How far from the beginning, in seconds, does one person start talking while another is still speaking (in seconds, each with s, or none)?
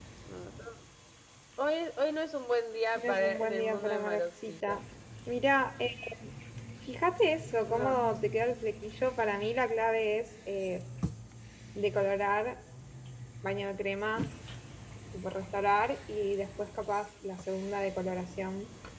3.0 s